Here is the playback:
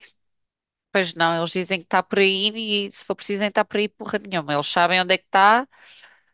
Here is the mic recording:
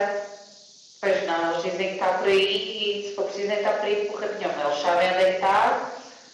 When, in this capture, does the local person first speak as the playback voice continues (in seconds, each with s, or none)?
none